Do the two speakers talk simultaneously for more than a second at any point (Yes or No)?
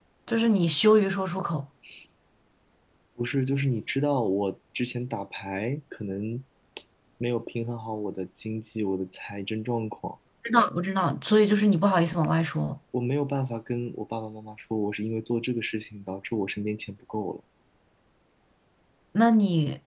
No